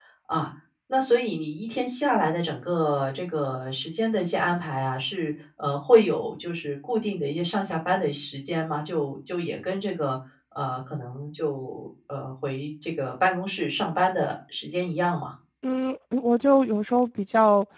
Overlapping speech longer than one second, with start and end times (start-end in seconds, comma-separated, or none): none